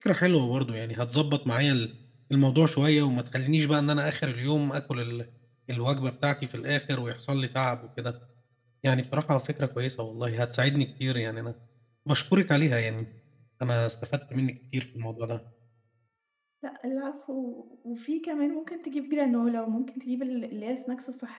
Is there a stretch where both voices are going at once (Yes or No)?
No